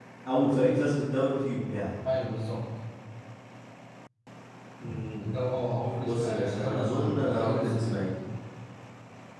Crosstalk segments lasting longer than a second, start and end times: 6.0-8.1

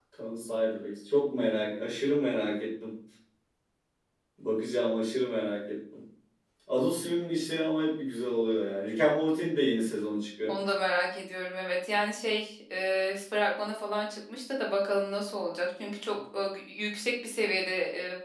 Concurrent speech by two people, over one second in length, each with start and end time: none

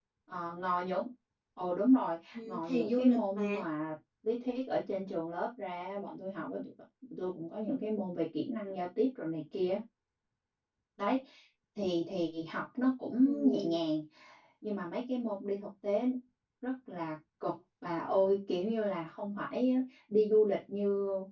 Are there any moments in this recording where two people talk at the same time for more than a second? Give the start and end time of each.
2.3-3.6

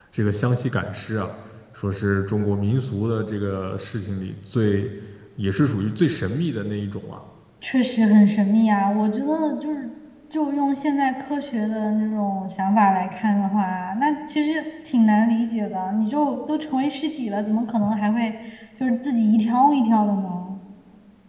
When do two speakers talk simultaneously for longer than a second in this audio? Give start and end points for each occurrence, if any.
none

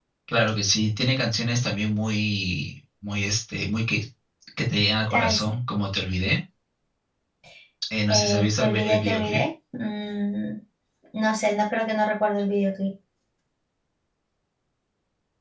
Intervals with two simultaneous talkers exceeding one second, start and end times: 8.1-9.4

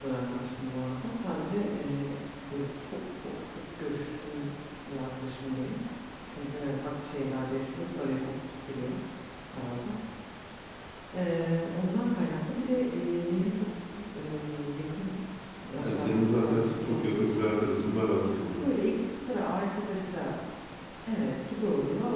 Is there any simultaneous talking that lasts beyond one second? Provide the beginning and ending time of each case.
15.8-17.5

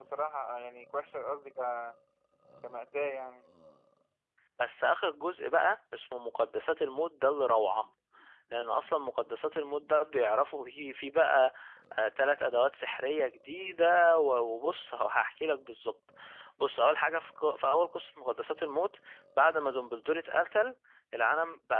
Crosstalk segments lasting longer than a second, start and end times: none

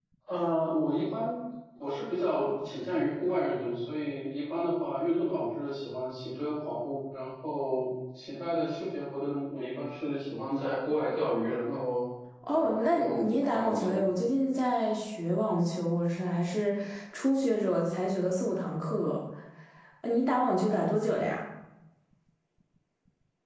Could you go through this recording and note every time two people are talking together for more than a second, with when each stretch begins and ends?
12.5-14.1

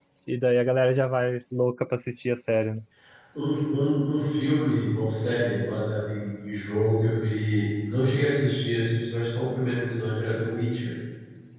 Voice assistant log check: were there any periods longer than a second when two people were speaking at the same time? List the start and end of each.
none

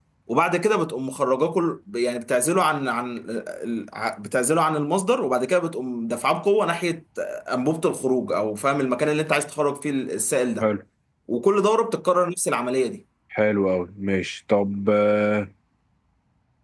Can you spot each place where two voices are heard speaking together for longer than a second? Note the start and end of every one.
none

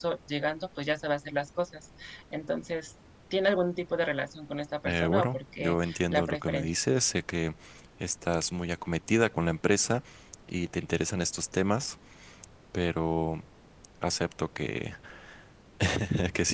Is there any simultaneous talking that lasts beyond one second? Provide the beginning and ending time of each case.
4.8-6.7

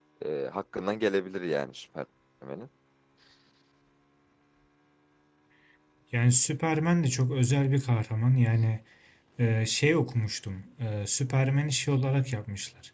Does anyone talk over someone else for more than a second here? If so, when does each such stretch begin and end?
none

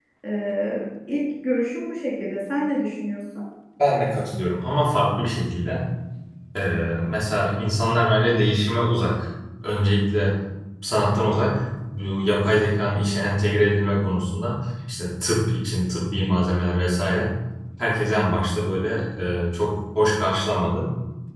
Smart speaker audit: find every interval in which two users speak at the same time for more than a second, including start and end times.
none

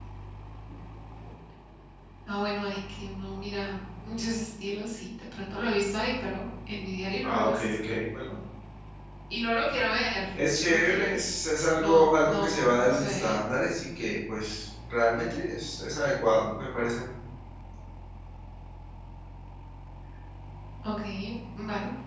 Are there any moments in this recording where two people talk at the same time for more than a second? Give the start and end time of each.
11.8-13.4

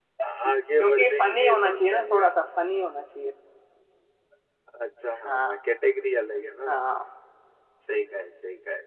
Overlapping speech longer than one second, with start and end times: 0.8-2.3

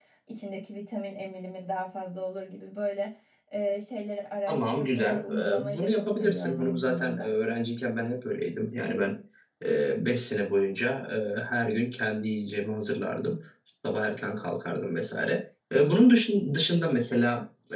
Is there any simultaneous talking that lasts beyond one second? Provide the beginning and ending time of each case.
4.5-7.3

